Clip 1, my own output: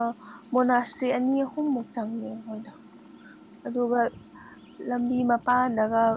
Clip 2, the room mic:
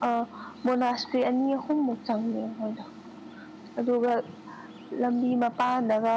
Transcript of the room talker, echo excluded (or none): none